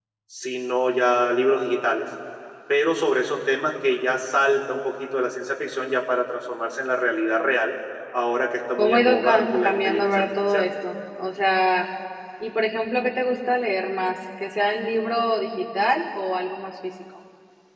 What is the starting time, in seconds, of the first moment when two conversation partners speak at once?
9 s

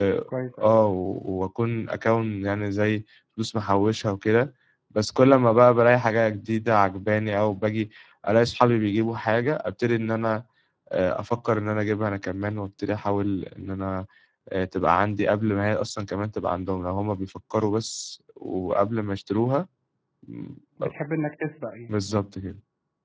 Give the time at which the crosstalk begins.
none

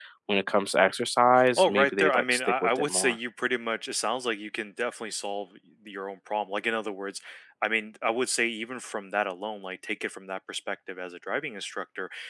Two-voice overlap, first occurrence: 1 s

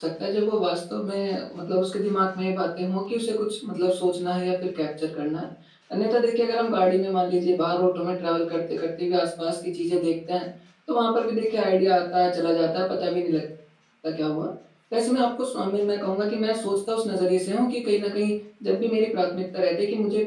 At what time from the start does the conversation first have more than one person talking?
none

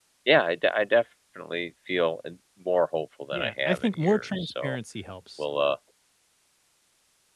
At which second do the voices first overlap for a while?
3 s

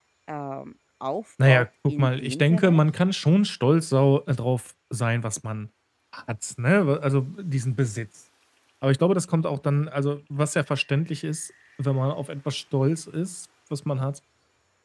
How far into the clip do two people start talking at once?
1 s

